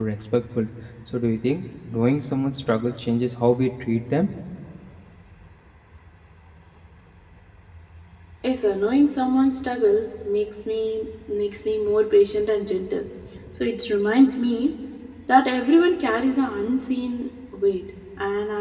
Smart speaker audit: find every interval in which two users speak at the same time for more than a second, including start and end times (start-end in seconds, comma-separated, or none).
none